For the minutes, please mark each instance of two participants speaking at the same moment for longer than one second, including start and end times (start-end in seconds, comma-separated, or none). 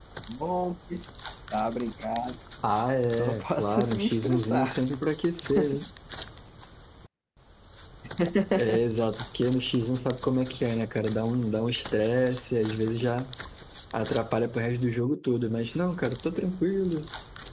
3.2-4.8